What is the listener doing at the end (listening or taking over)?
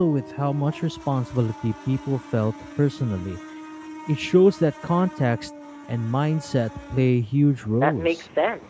taking over